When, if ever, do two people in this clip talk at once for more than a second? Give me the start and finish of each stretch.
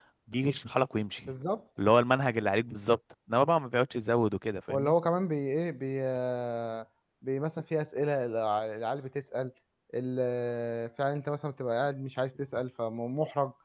none

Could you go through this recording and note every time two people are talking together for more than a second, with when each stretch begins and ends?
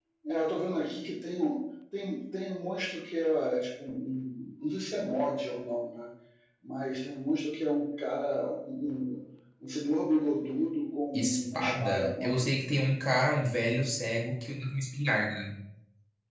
11.1-12.4

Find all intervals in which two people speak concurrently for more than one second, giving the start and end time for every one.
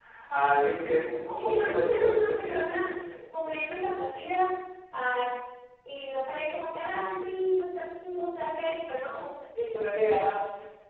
1.4-2.8

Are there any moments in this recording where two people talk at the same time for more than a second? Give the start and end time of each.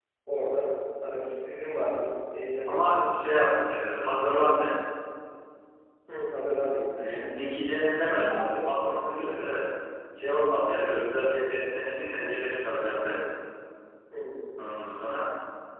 none

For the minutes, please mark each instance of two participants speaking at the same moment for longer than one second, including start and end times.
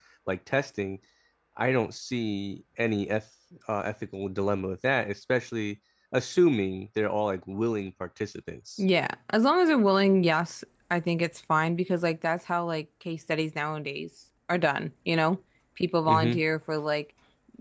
none

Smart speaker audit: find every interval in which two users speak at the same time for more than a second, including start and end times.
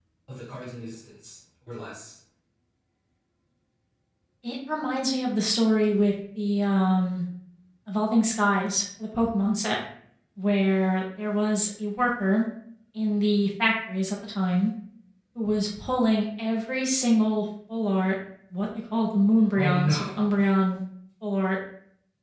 none

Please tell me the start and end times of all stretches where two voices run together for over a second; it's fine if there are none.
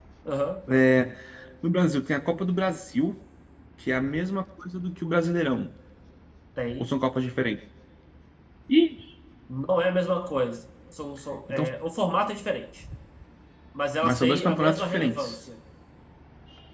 14.0-15.4

